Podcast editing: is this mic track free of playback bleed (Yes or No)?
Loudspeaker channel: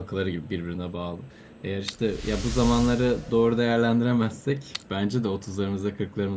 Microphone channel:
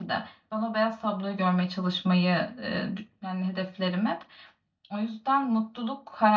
Yes